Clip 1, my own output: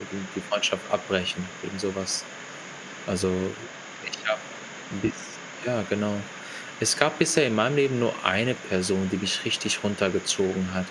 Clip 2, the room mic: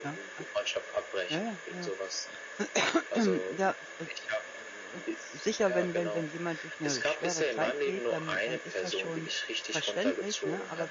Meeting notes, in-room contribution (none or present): present